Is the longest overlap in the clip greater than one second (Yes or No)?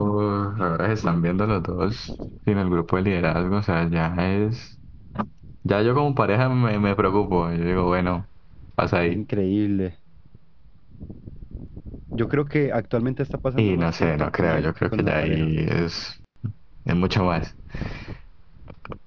Yes